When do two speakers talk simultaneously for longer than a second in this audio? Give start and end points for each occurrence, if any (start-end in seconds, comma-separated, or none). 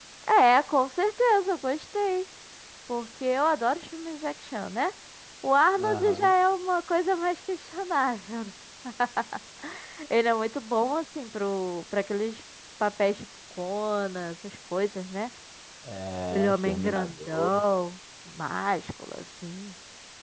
16.3-17.6